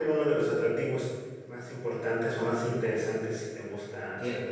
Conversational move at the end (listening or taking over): taking over